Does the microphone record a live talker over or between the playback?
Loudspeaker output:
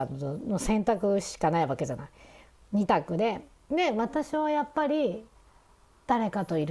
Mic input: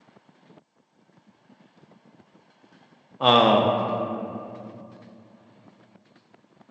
Yes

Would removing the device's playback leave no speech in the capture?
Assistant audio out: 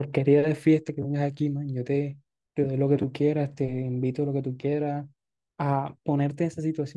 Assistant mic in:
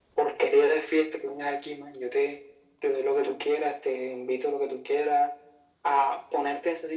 Yes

